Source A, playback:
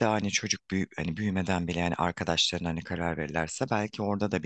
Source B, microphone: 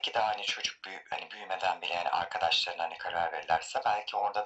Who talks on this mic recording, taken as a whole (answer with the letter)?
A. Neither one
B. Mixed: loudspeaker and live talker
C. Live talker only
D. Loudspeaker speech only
D